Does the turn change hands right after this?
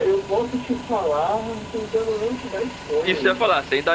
Yes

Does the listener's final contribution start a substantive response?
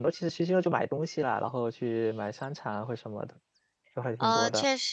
Yes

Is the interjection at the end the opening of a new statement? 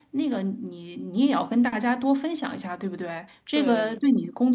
No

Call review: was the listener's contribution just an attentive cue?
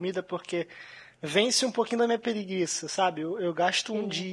Yes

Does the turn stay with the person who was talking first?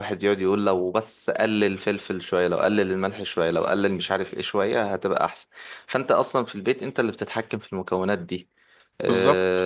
Yes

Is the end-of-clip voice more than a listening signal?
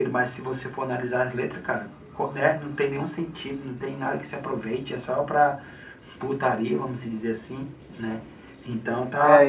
Yes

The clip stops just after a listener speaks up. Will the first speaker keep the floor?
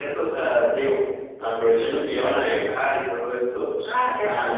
No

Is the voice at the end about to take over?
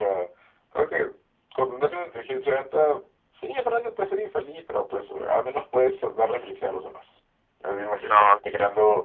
No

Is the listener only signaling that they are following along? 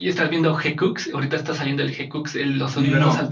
No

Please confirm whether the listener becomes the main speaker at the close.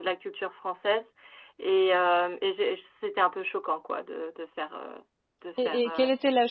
Yes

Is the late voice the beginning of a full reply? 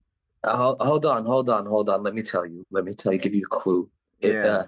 No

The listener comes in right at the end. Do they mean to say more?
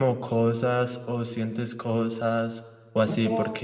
No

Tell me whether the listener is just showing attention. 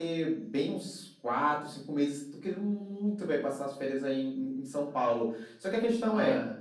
Yes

